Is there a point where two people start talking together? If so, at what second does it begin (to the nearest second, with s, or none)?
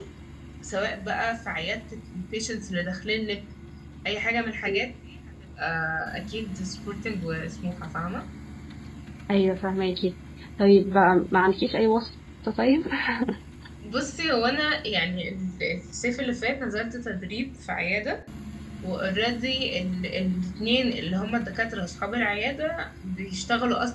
none